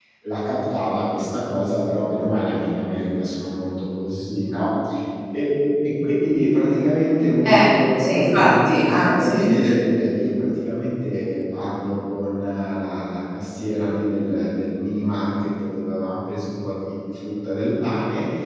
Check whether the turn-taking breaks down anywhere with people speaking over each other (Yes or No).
Yes